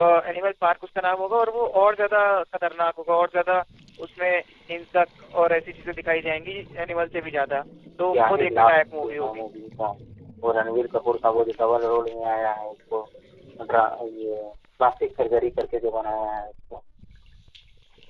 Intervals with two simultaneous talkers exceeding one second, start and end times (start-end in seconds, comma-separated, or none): 8.1-9.4